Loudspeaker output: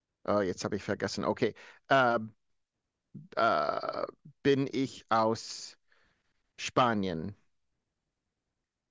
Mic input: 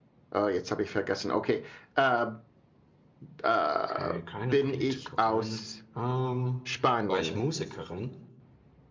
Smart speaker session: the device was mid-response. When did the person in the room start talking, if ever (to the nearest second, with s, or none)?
4 s